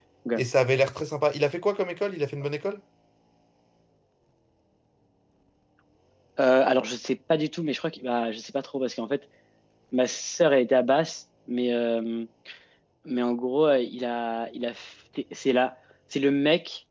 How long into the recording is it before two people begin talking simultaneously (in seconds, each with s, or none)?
none